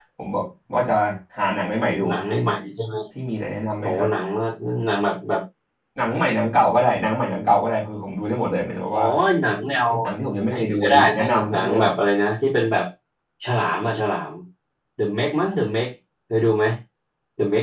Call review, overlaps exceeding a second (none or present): present